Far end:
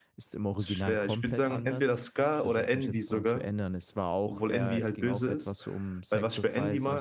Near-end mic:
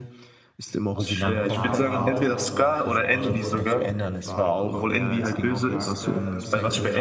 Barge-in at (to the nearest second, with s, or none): 1 s